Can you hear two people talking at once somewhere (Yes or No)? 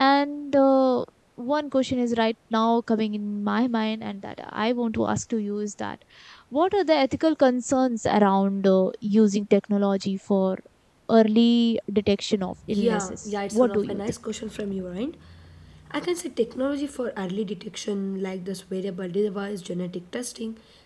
Yes